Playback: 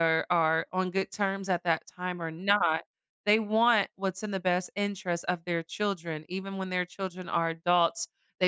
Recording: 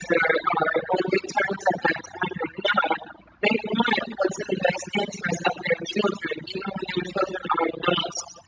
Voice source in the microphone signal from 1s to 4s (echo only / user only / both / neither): echo only